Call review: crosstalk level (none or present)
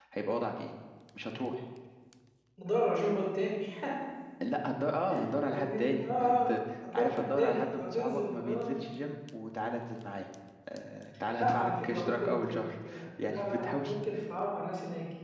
present